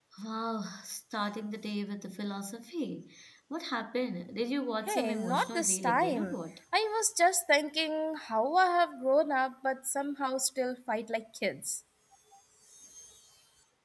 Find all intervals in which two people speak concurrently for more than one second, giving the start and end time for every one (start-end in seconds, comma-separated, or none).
4.9-6.4